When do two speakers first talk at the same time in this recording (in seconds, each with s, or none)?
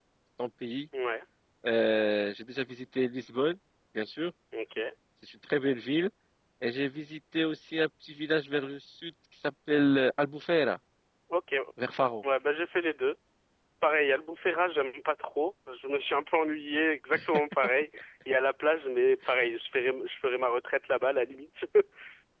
none